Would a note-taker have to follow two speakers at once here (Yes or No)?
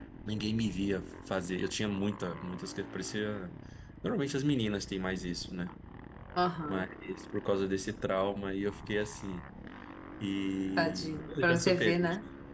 Yes